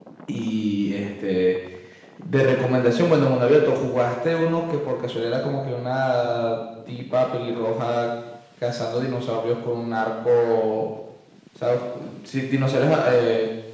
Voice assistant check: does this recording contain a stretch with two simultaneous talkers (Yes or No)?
No